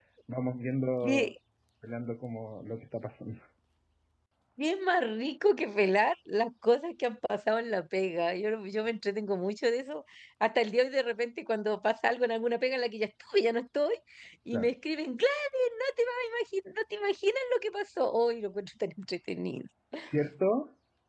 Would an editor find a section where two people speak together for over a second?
No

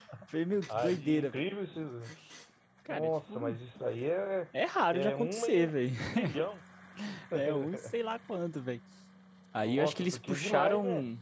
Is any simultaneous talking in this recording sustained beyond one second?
Yes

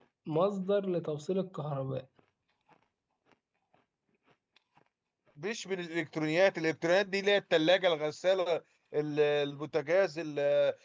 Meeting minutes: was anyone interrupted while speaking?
No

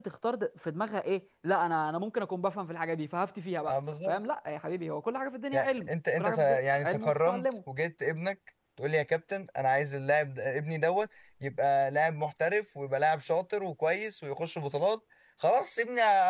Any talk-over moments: Yes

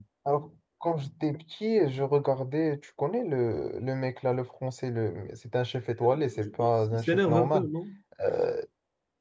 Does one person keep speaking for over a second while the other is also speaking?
Yes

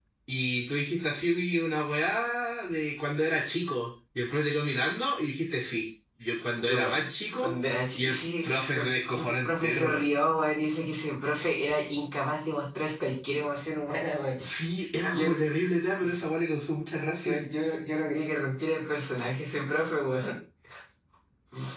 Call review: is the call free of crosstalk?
No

